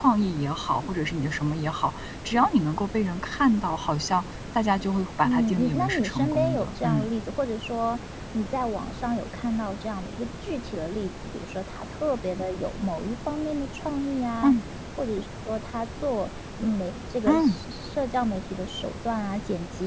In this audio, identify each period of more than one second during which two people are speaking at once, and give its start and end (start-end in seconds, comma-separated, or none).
5.2-7.1